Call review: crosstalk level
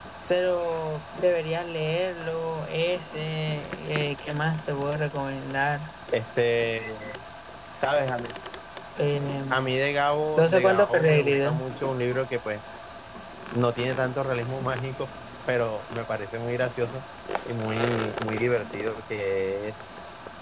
present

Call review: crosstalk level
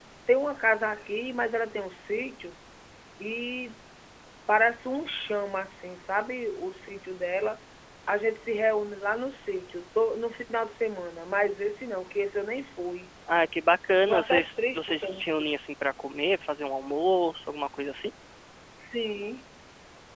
present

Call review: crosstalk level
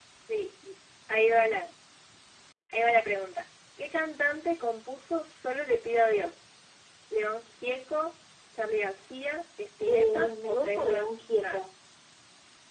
present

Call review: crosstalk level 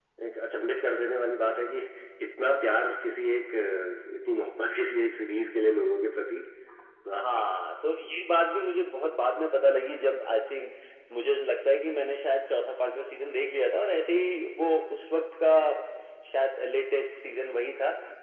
none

